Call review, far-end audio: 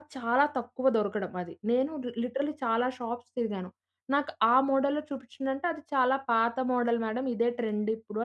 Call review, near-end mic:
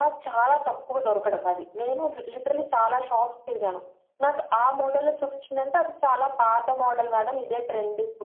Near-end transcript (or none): none